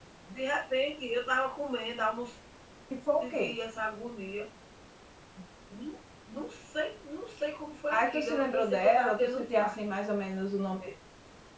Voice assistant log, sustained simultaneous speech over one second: present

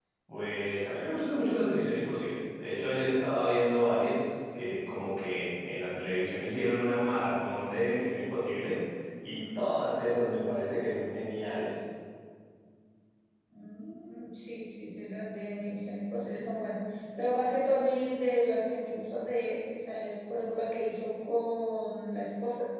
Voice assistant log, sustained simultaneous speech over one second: none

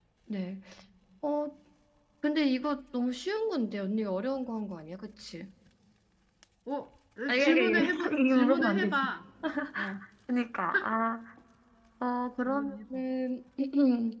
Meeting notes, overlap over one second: present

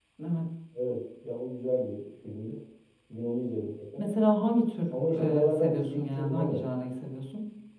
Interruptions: present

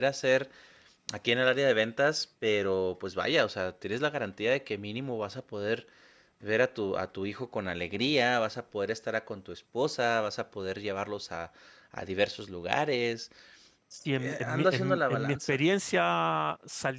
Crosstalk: present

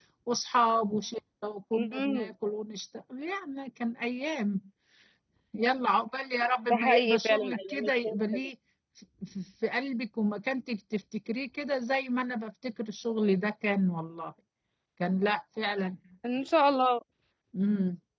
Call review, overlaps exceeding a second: present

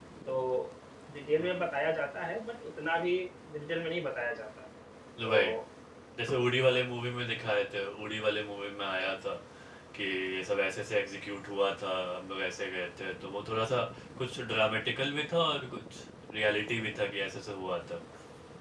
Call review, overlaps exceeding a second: none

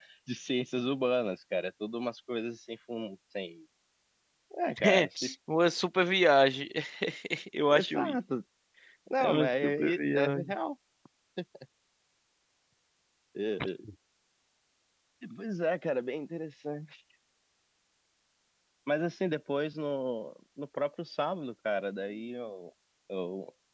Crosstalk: present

